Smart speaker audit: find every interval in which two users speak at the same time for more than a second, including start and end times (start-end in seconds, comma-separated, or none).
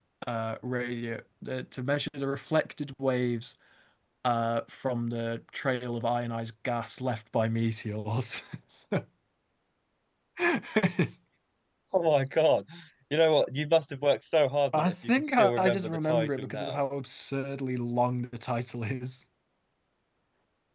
14.7-16.8